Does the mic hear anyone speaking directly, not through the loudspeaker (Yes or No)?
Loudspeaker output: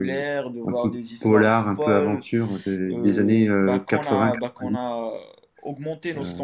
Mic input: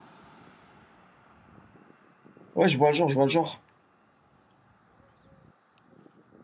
Yes